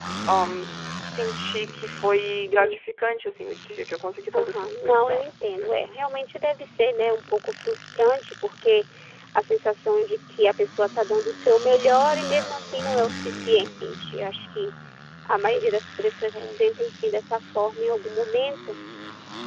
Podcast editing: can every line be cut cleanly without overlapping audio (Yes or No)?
No